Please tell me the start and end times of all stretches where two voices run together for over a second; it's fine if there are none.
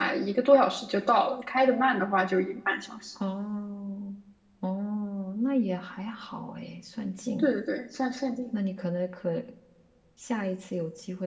none

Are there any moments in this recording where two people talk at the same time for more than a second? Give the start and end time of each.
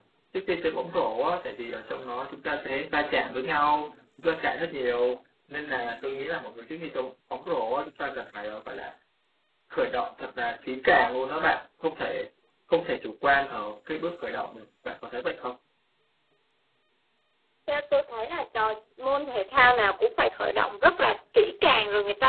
none

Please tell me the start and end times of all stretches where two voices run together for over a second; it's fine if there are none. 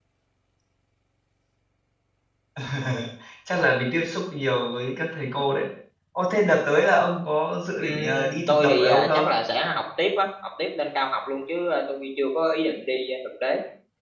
7.8-9.3

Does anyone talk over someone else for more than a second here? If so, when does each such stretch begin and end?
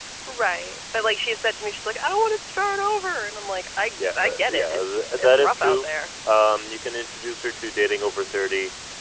4.0-5.8

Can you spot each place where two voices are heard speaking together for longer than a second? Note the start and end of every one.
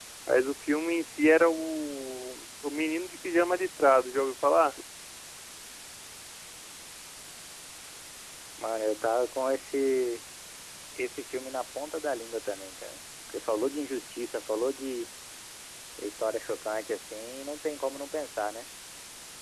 none

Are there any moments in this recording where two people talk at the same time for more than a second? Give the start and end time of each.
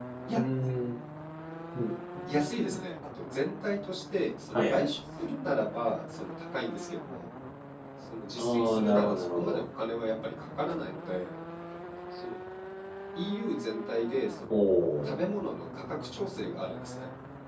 8.4-9.6

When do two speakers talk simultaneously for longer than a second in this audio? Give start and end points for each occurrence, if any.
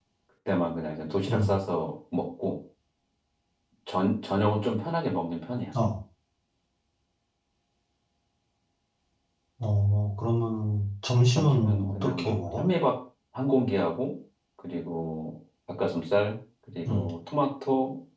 11.4-12.6

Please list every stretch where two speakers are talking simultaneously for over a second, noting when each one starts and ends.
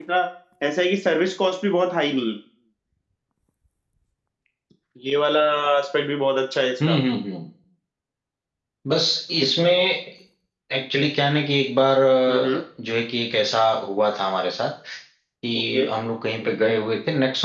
none

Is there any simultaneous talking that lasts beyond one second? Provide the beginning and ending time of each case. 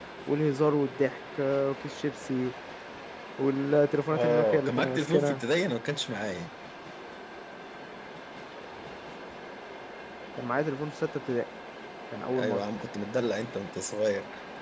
4.1-5.4

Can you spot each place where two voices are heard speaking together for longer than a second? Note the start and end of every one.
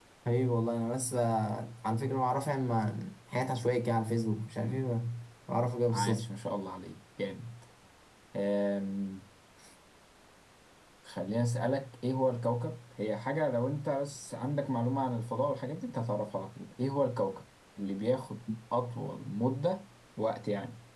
none

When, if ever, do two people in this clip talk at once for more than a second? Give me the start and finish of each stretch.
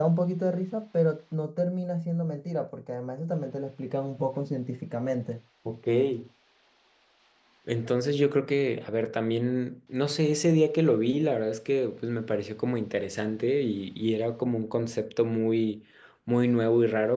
none

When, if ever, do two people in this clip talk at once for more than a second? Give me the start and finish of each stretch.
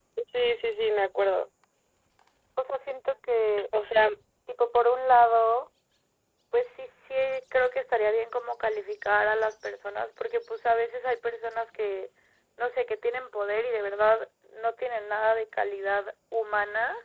none

